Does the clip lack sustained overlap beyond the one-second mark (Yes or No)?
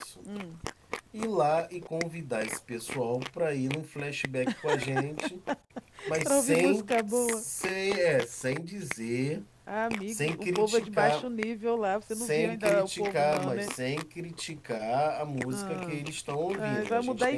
No